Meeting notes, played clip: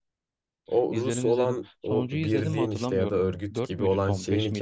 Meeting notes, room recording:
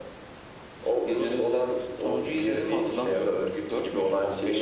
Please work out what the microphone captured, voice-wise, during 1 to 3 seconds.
echo only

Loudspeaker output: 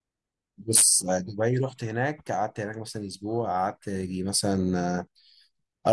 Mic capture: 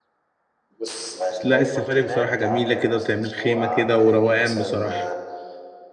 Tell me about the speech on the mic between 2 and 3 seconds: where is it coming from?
both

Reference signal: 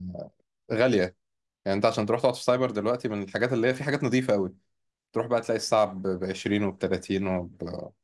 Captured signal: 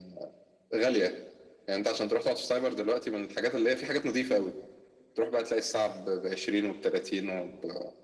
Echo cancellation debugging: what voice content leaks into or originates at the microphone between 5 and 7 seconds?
echo only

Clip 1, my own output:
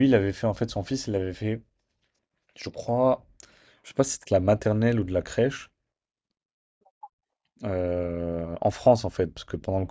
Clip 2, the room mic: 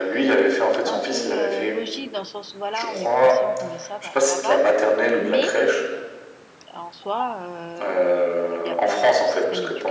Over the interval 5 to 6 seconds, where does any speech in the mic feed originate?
both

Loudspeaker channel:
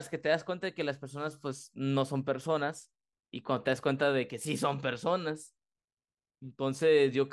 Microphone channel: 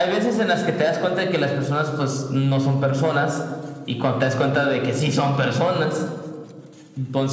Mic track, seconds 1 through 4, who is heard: echo only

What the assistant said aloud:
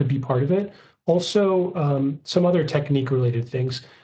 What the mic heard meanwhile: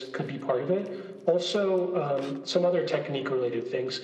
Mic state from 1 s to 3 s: echo only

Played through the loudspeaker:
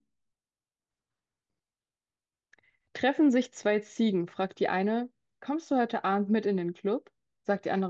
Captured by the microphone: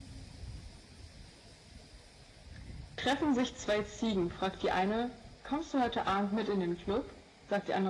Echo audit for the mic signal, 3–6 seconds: echo only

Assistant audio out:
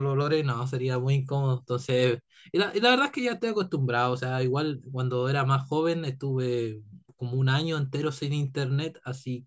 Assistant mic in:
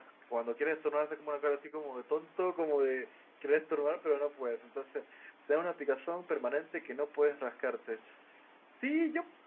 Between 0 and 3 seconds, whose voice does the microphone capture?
user only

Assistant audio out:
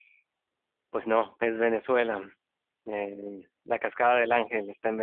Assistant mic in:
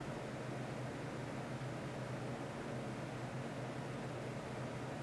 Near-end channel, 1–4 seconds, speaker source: neither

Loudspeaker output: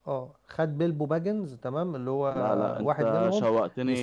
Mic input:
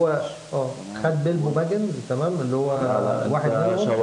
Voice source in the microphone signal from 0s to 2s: both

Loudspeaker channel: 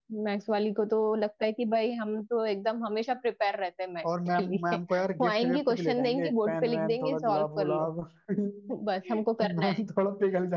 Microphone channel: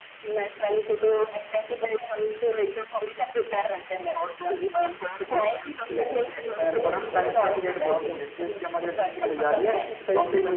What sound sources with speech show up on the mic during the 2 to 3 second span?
echo only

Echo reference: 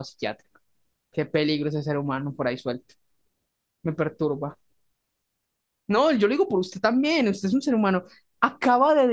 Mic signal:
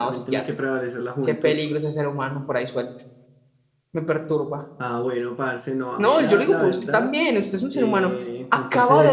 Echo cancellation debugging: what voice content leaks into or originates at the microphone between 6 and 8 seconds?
both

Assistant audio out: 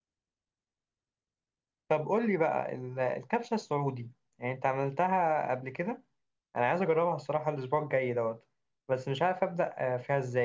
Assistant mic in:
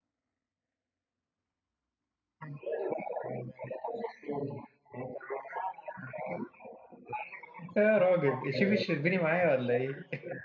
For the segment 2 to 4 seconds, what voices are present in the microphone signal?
echo only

